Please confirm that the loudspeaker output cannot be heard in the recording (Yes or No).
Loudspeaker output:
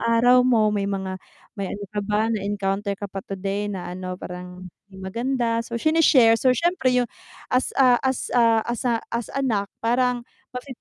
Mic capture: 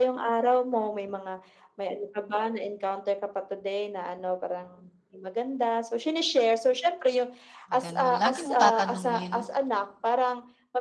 No